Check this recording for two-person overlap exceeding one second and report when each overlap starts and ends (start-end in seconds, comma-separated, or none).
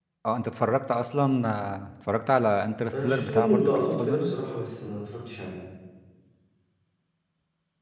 3.0-4.4